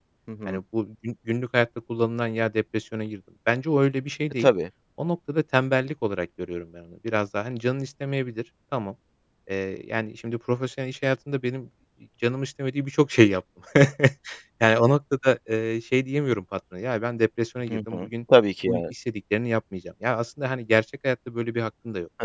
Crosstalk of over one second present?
No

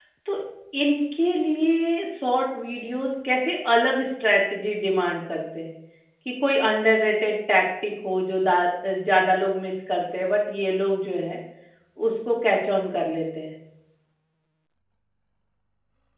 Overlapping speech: No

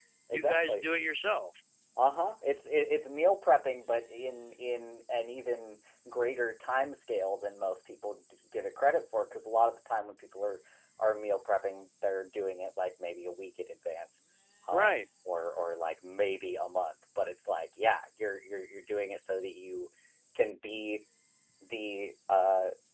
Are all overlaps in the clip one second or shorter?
Yes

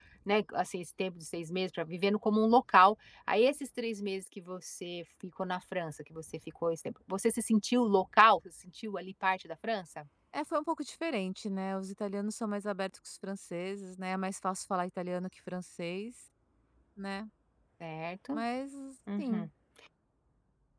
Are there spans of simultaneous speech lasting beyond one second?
No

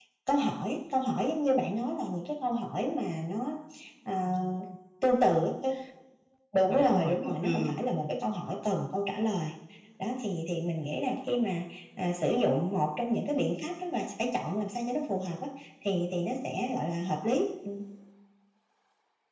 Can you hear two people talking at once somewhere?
Yes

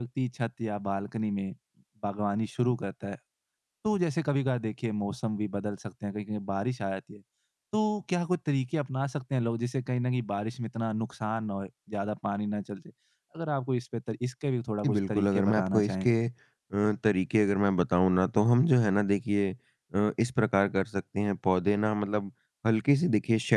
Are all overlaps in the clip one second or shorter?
No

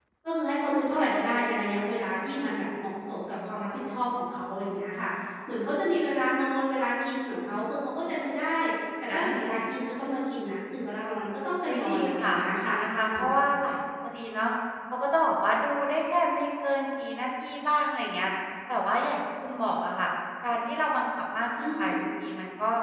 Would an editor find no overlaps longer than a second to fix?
No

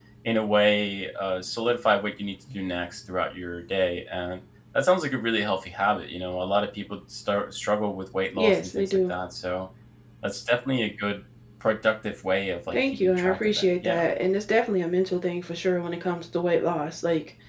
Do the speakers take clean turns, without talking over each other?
No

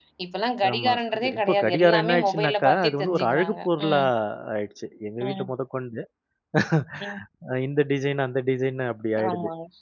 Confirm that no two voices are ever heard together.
No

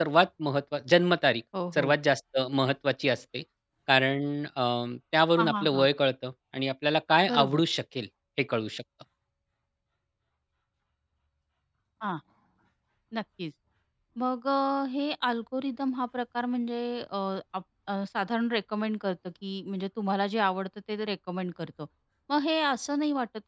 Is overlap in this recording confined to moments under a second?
Yes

